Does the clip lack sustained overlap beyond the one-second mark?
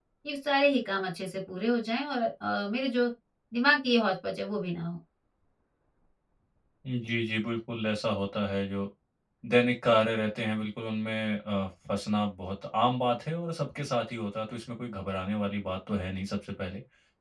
Yes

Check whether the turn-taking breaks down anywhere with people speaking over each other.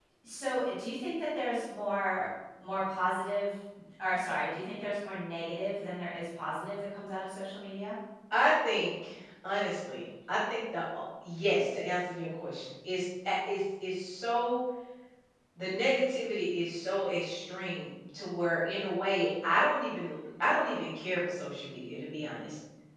No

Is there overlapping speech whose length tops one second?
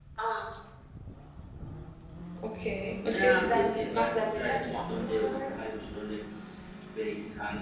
Yes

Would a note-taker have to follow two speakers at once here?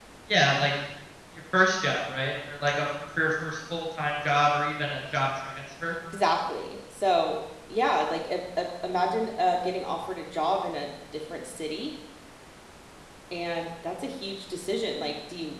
No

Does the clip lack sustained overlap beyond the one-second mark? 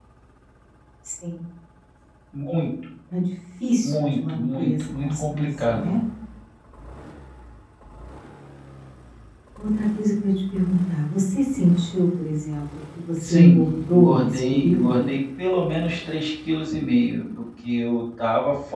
No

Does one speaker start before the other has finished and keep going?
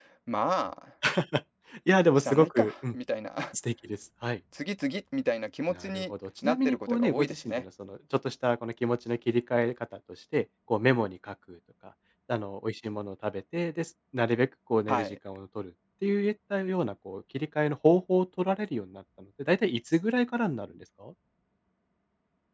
Yes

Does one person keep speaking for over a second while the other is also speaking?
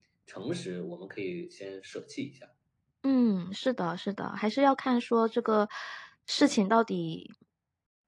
No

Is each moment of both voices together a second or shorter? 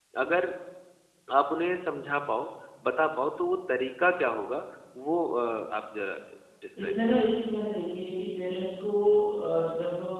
Yes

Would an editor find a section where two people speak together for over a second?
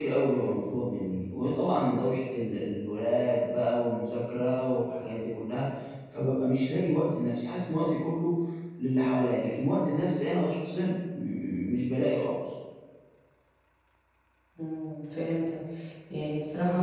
No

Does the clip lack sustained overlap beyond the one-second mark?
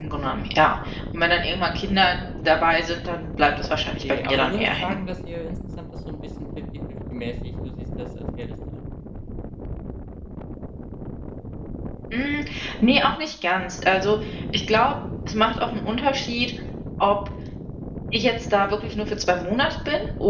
No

